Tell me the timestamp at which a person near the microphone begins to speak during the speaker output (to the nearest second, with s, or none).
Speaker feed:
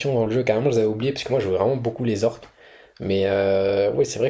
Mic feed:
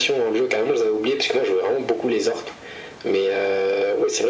none